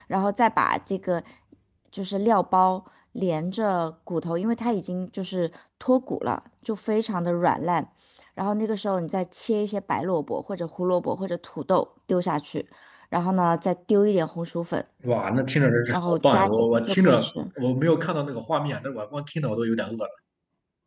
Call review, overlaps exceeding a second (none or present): present